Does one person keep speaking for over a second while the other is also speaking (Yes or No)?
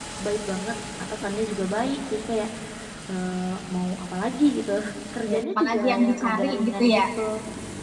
Yes